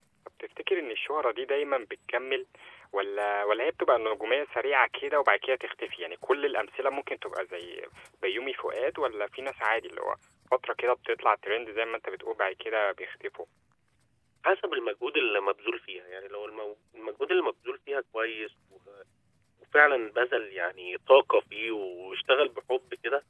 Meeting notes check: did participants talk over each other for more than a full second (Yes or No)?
No